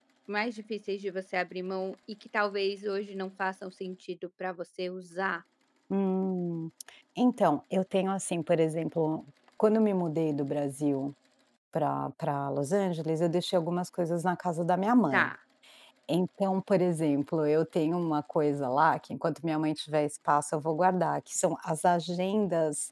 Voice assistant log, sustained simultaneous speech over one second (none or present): none